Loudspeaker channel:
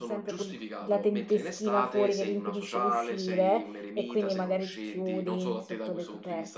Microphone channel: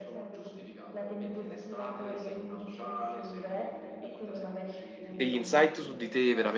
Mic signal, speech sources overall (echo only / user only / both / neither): both